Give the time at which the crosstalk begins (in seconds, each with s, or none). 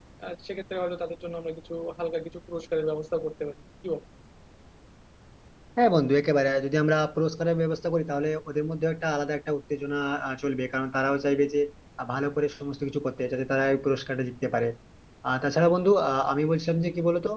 none